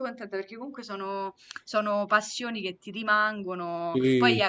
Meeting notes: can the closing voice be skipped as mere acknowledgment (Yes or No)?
Yes